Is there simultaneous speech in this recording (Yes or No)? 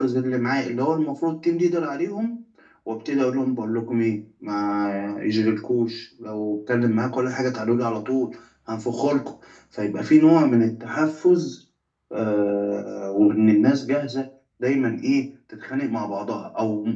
No